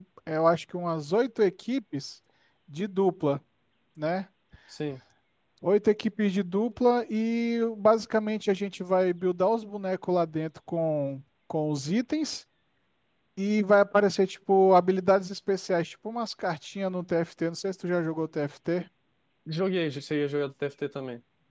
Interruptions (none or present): none